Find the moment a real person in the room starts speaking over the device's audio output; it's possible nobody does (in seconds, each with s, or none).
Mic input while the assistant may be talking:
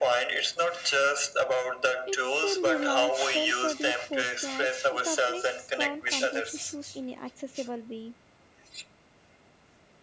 2.1 s